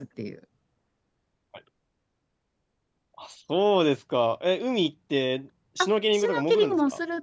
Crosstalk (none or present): present